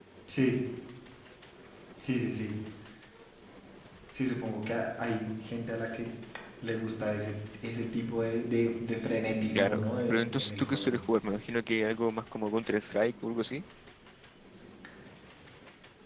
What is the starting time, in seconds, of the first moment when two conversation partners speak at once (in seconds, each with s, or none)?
9.6 s